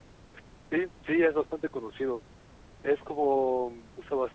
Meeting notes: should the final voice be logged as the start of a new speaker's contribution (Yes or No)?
No